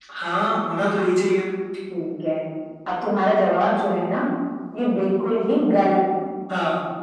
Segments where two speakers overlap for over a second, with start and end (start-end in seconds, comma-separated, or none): none